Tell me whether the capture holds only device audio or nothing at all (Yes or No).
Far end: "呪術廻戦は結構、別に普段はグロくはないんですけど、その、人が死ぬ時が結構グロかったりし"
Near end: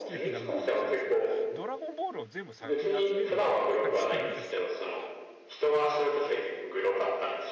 No